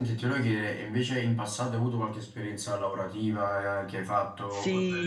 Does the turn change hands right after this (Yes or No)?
Yes